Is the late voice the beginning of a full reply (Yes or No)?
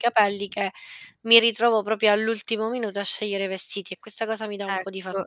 Yes